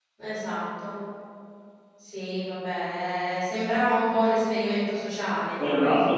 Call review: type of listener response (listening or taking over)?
taking over